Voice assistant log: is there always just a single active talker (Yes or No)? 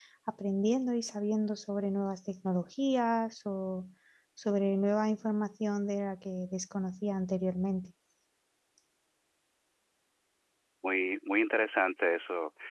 Yes